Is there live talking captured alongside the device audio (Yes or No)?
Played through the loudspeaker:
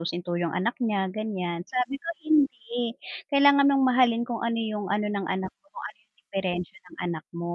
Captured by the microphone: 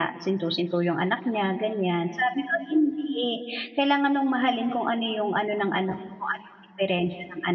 No